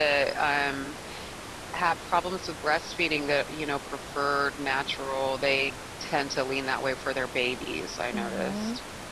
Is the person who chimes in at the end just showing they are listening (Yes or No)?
No